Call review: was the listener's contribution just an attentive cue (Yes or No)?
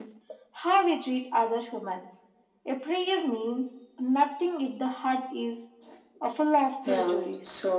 No